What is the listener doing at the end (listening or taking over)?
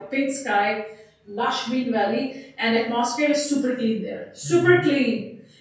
listening